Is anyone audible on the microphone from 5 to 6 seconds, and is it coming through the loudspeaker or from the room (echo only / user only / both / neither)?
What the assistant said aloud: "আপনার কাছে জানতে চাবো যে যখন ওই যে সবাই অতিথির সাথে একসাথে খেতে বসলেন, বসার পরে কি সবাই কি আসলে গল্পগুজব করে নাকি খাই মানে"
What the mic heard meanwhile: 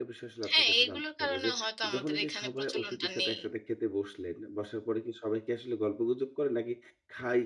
echo only